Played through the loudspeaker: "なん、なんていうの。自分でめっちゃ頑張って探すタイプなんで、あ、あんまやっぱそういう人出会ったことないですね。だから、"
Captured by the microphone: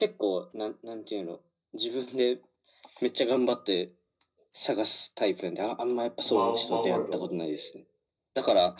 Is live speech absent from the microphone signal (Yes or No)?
No